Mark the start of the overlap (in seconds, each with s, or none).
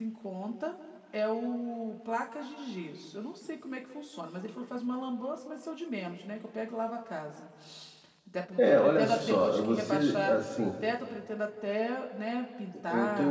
8.6 s